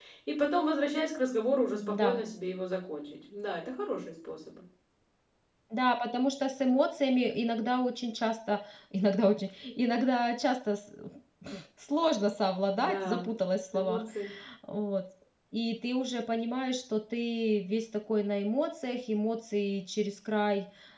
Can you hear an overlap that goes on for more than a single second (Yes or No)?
No